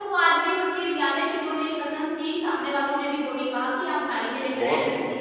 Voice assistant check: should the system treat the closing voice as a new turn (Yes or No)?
Yes